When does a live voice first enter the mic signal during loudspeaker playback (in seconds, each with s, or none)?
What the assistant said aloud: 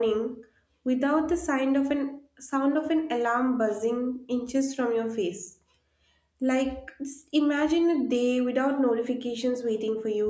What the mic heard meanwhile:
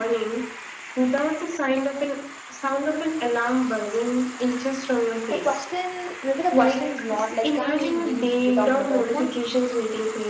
5.3 s